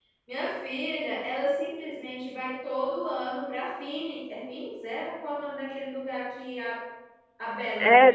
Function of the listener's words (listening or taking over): taking over